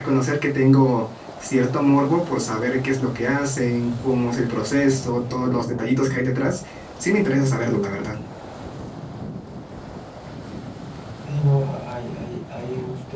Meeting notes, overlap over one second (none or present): none